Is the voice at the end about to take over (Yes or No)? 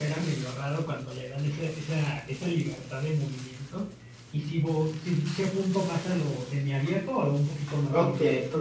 Yes